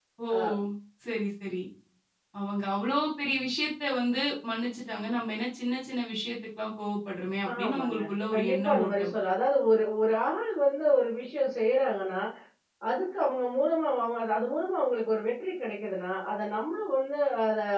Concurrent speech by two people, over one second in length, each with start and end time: 7.6-9.1

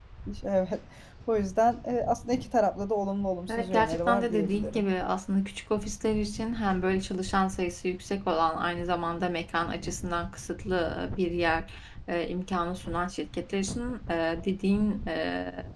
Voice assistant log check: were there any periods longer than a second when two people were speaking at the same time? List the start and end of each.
3.5-4.8

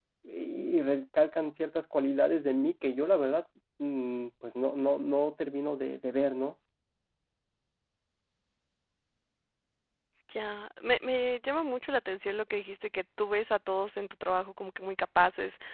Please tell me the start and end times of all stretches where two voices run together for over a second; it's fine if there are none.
none

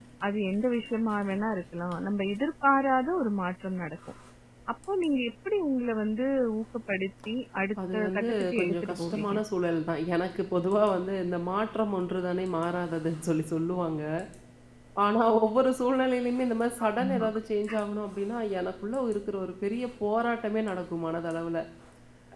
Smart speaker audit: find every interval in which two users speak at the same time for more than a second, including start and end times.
7.9-9.3

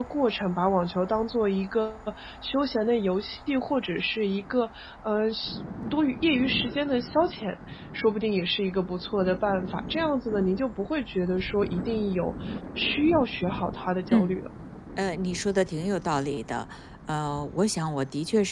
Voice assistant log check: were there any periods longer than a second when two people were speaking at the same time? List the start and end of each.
none

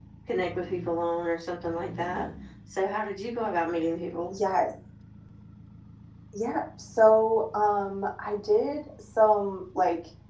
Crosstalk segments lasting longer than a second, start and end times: none

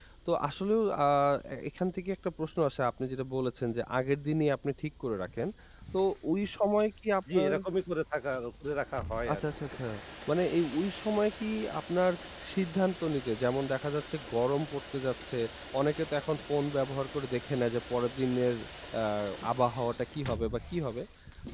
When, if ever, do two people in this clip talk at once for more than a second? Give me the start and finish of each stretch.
none

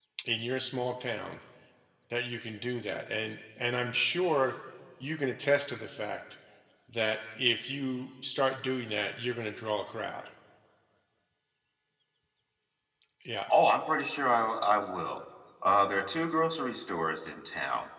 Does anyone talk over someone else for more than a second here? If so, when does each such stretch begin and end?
none

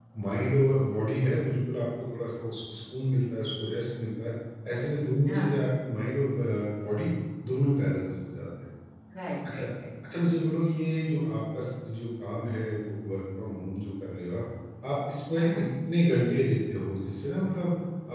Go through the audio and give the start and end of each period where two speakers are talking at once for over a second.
none

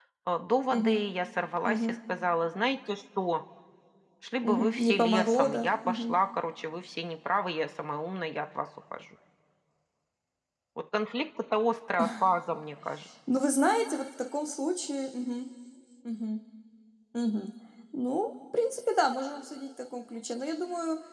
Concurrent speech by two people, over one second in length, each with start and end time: 4.4-6.2

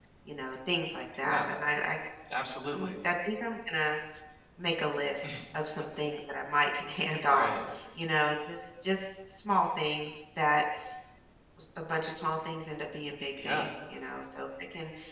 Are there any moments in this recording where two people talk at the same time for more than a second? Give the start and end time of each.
none

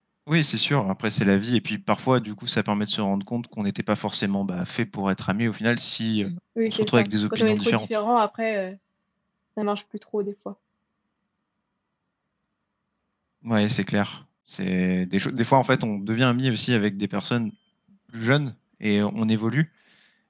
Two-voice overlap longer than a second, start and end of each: 6.7-7.9

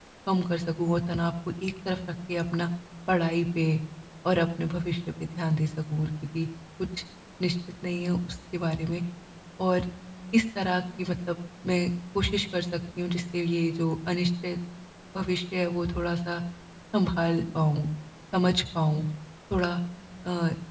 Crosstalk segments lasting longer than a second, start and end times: none

